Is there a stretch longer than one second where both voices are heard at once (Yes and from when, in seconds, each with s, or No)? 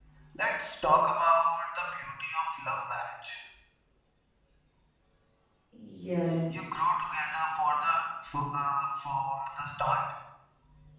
Yes, from 6.5 s